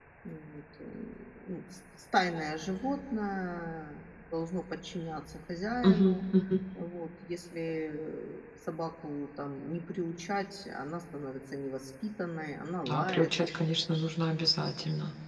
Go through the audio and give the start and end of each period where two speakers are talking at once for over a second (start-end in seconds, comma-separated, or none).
none